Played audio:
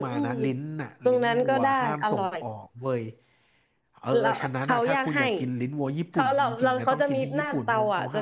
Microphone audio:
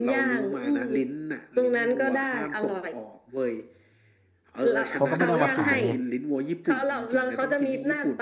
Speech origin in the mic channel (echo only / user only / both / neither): both